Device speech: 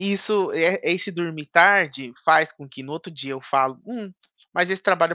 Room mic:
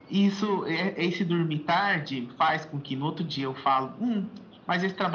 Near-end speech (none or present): none